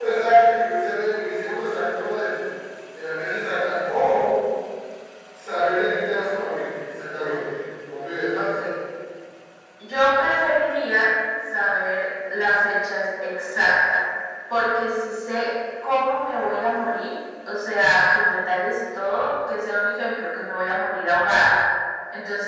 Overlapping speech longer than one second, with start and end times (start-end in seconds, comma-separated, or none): none